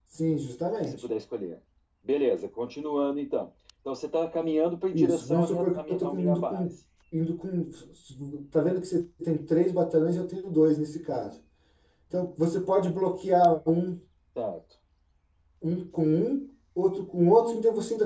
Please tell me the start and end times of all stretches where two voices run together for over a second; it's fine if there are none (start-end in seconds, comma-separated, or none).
4.9-6.7